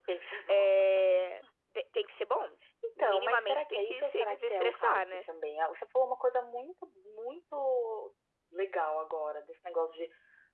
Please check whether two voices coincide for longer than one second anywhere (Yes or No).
Yes